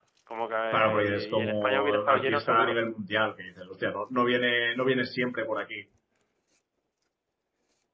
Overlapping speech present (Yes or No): Yes